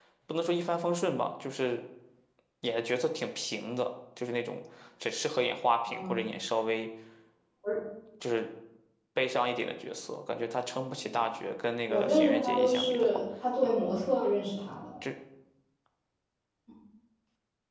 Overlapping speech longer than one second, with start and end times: 11.9-13.1

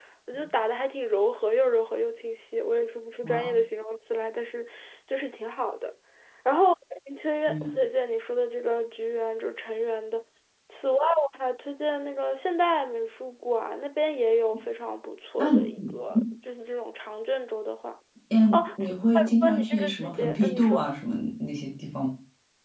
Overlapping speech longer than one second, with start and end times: 19.1-20.8

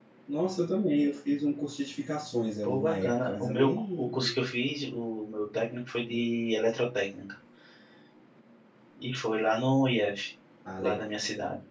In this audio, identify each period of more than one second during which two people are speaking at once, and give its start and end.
2.6-4.4

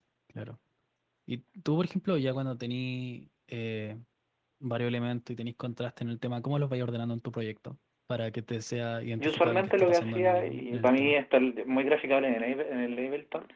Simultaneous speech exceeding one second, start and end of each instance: 9.2-11.1

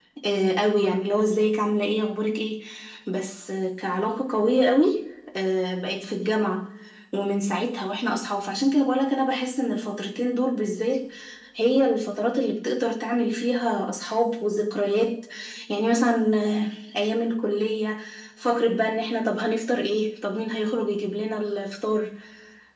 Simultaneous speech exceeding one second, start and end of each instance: none

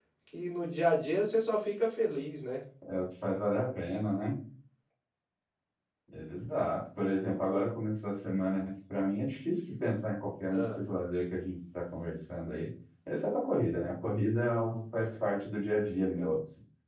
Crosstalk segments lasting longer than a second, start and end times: none

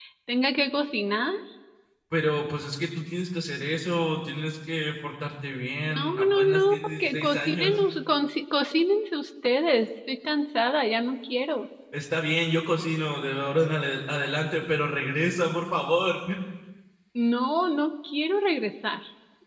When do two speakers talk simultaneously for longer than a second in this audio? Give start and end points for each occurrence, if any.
5.9-7.8

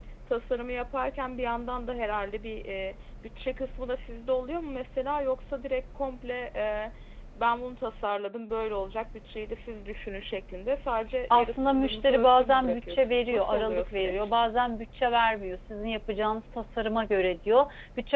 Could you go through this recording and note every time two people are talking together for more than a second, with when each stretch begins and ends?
11.3-14.3

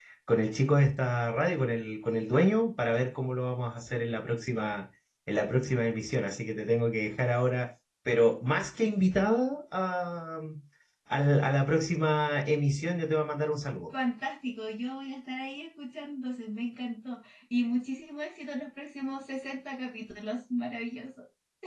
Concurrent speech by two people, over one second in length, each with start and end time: none

